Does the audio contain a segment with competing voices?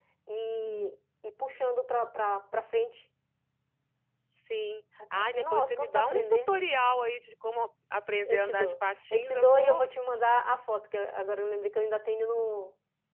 Yes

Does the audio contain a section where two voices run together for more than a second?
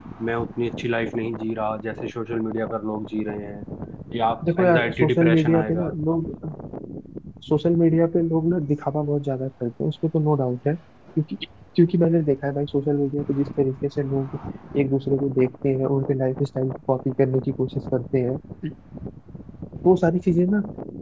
Yes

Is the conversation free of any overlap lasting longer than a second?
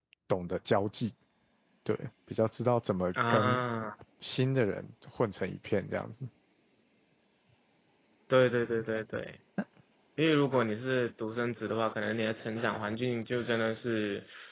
Yes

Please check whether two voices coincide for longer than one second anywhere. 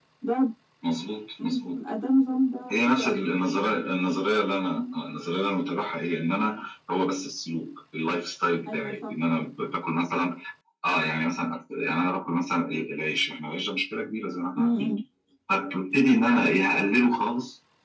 No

